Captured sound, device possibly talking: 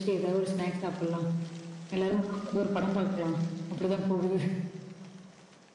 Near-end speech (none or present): none